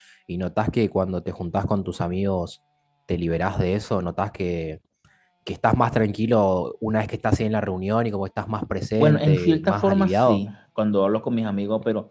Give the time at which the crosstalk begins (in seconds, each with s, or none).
9.0 s